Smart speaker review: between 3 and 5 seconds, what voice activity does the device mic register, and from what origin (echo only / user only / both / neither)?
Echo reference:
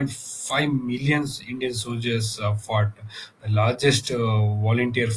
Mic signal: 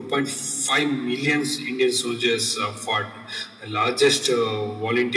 echo only